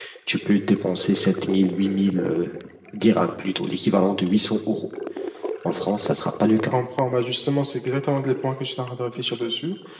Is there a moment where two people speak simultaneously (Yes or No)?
No